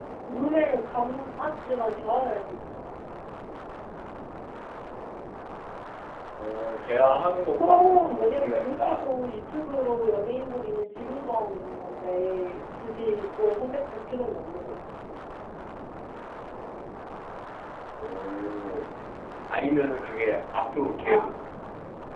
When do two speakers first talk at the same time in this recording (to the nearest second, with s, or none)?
8 s